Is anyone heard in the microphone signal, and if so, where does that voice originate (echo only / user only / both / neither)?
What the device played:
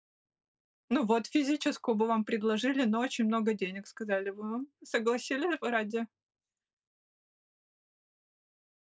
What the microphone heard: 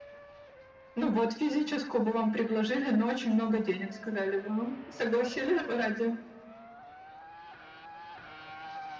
echo only